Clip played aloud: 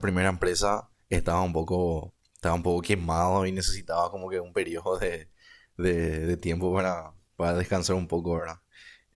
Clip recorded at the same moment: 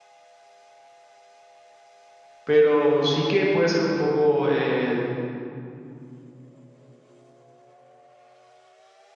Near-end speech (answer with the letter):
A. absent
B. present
B